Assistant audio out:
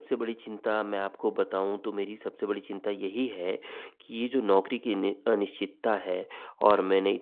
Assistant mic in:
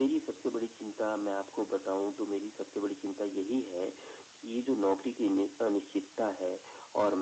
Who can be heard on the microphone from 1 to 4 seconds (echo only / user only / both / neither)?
echo only